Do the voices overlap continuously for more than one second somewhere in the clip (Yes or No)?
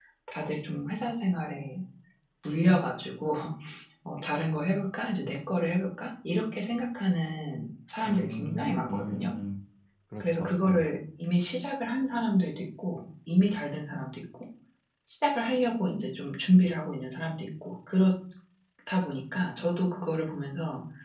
Yes